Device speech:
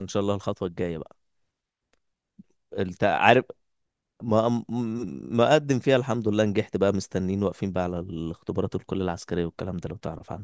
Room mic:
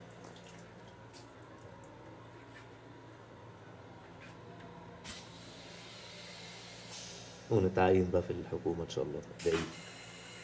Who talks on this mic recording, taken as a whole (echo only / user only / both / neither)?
user only